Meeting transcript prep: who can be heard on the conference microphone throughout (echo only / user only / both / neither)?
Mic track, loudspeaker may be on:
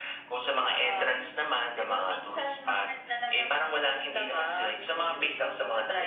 echo only